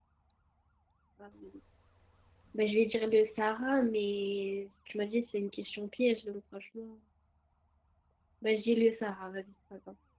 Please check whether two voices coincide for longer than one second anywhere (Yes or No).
No